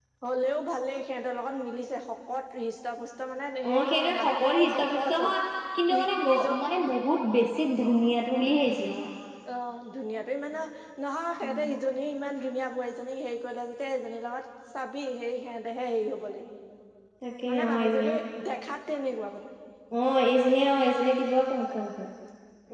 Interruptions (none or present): present